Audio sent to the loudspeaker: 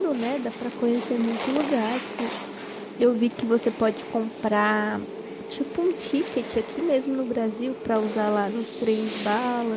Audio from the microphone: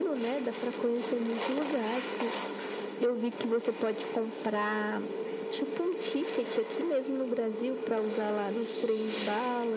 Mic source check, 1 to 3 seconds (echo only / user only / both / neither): echo only